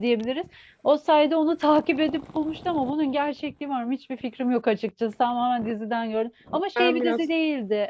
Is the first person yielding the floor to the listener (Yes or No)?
No